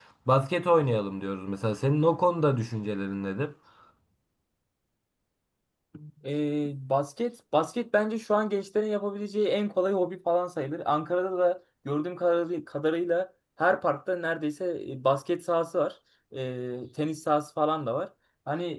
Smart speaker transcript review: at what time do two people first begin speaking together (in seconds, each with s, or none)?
none